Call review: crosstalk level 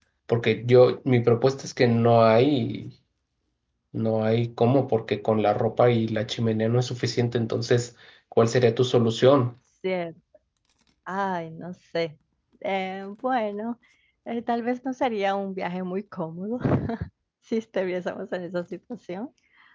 none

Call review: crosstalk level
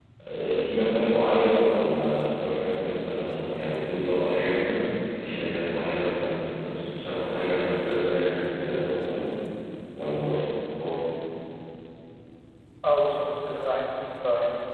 none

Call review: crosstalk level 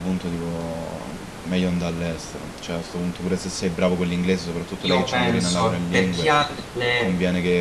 present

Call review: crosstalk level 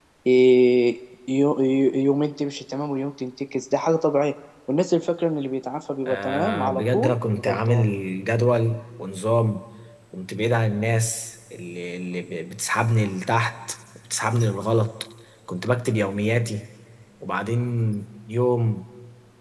present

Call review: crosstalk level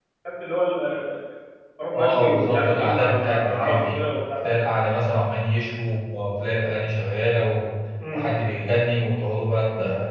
present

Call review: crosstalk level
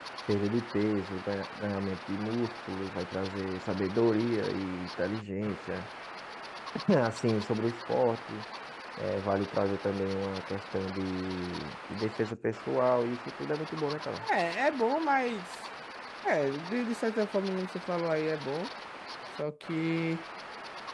none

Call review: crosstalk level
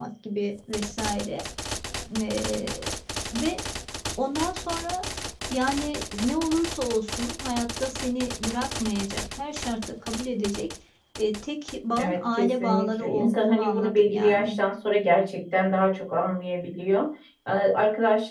present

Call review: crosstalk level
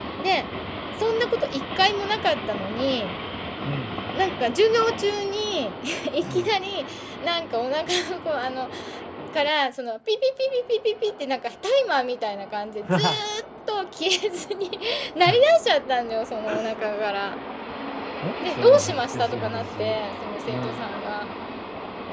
present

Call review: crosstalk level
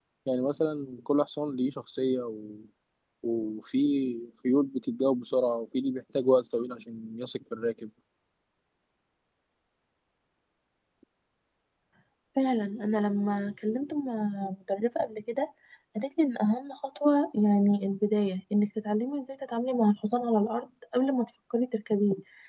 none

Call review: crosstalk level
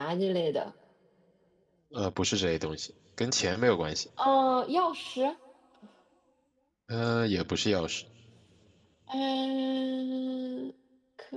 none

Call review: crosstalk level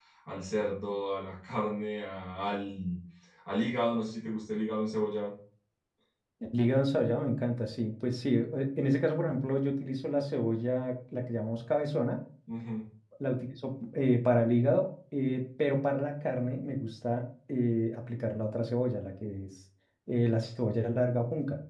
none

